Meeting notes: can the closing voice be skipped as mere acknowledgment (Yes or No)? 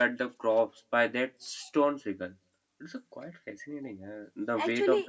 No